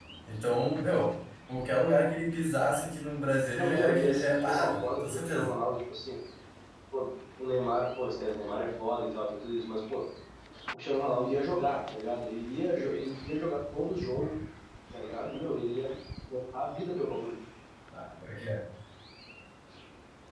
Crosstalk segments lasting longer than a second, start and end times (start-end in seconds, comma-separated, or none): 3.5-5.5